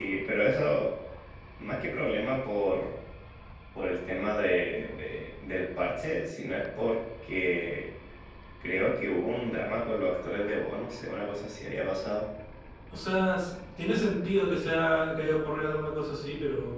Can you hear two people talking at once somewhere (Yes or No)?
No